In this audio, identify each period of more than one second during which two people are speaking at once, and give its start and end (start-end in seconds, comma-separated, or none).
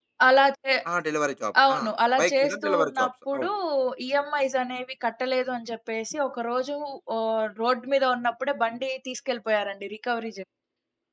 2.2-3.5